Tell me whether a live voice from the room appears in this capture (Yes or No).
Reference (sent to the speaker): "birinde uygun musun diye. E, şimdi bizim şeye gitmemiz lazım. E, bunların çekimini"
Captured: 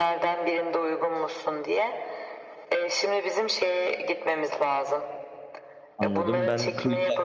Yes